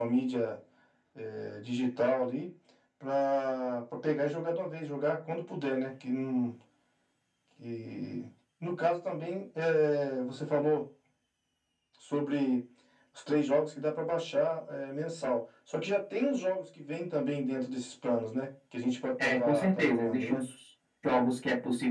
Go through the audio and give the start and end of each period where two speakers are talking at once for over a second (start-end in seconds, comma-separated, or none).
19.2-20.4